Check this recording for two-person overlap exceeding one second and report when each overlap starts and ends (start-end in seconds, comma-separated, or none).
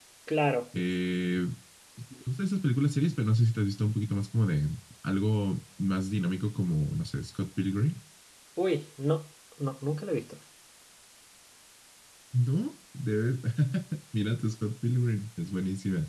none